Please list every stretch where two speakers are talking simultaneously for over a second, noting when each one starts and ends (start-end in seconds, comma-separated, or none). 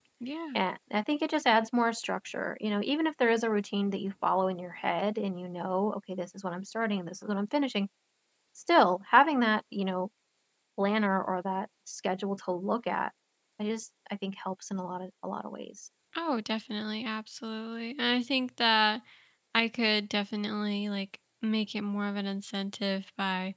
none